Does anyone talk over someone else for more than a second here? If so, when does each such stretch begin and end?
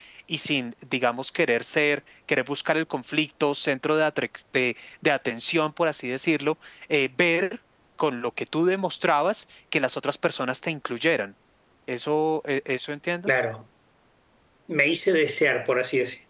none

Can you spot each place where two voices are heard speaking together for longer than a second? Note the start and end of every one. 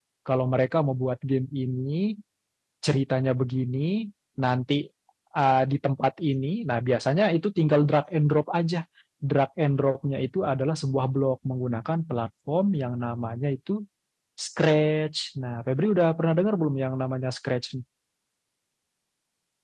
none

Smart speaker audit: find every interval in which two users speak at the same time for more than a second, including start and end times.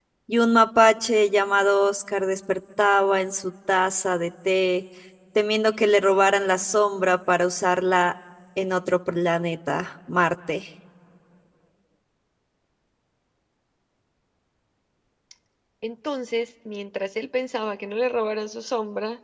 none

